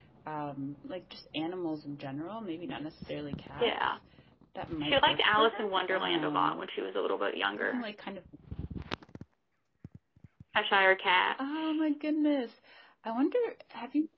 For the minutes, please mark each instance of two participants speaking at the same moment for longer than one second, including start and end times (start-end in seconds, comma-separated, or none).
4.8-6.6